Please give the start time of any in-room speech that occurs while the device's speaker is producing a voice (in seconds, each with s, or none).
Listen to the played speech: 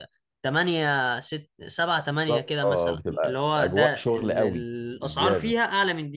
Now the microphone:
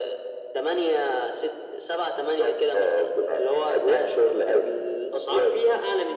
none